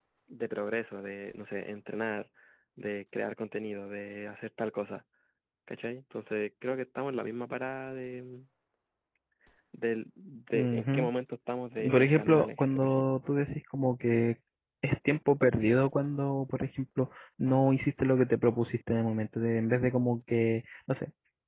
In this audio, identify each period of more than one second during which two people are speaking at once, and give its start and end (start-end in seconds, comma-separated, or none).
11.8-13.1